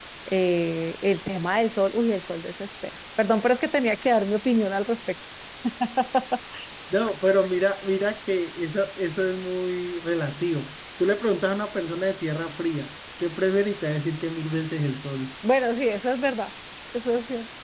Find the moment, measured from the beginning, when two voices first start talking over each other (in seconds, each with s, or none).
none